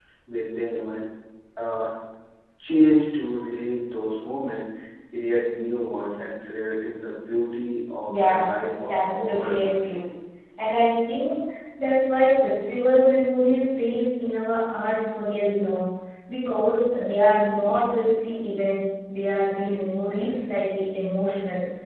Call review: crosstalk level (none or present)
present